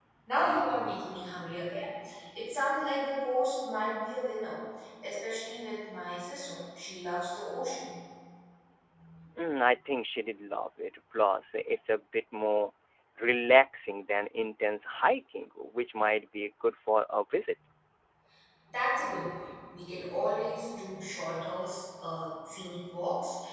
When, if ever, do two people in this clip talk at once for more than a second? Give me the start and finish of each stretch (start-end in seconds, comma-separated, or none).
none